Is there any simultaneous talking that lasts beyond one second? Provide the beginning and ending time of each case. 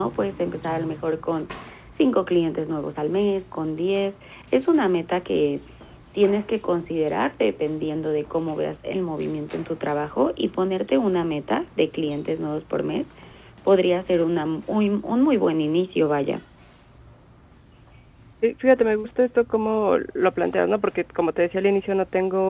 none

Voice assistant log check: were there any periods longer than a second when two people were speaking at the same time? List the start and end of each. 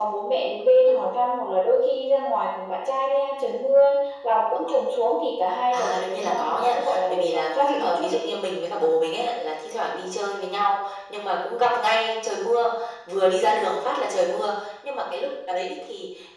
5.7-8.2

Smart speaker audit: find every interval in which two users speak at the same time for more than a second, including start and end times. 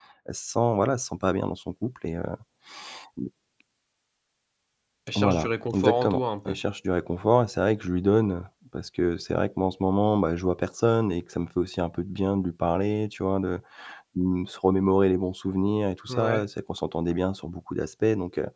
5.2-6.6

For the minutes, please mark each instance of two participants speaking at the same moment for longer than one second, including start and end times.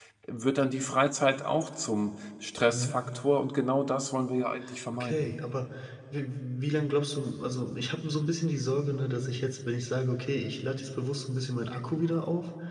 none

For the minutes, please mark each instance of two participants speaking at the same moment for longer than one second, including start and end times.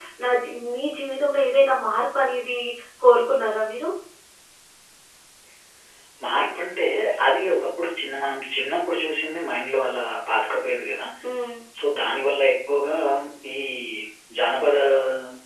none

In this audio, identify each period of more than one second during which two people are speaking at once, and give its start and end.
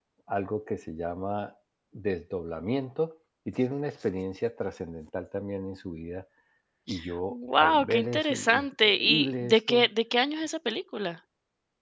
7.3-9.9

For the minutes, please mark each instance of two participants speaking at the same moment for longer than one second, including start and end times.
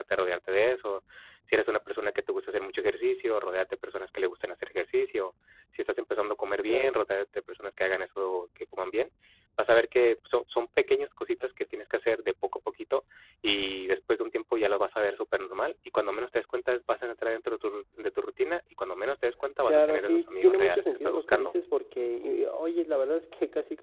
19.6-21.6

